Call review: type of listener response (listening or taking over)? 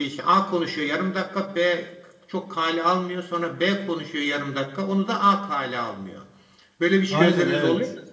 taking over